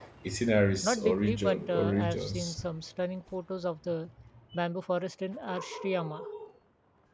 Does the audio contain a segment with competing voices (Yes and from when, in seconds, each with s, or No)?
Yes, from 0.8 s